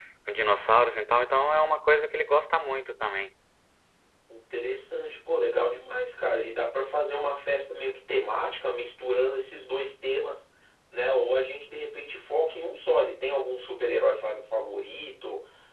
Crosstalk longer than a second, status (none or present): none